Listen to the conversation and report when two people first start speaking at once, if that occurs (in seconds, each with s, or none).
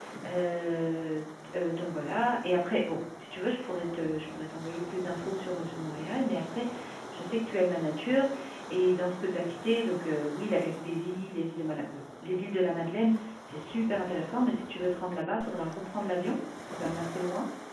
none